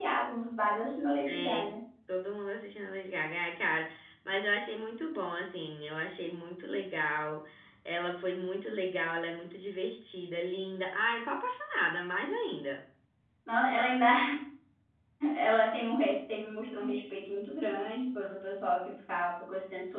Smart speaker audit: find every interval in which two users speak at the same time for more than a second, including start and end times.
none

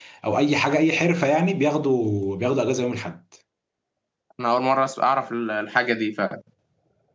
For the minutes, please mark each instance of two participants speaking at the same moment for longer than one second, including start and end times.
none

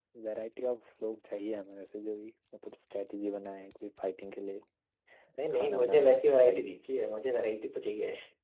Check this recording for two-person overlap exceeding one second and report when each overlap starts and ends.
5.5-6.8

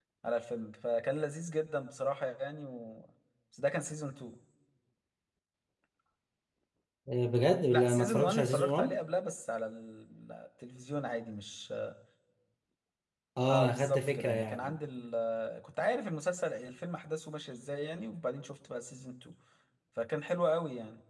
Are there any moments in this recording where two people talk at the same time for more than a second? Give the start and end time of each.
7.7-9.0, 13.5-14.7

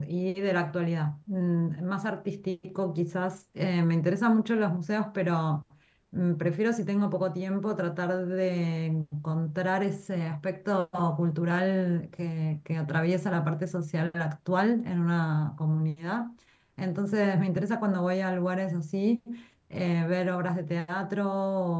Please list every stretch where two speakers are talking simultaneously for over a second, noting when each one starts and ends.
none

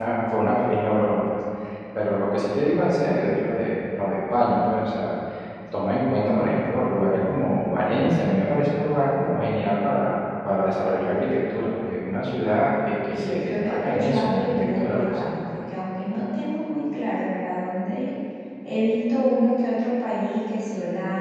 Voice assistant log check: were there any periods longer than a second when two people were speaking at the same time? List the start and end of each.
13.1-15.2

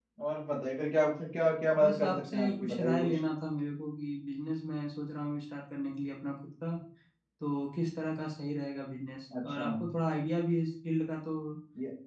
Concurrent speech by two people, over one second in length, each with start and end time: 1.8-3.2

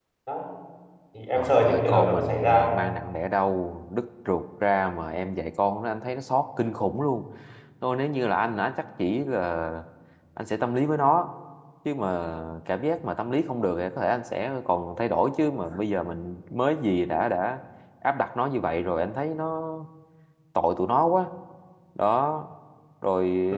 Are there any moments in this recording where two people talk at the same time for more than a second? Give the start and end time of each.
1.4-2.7

